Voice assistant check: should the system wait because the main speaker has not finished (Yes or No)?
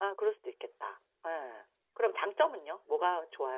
Yes